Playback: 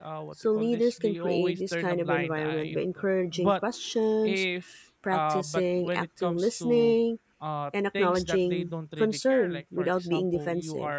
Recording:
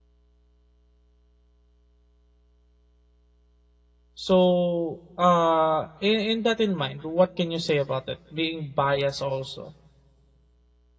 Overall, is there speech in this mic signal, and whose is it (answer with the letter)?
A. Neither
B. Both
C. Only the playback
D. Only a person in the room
D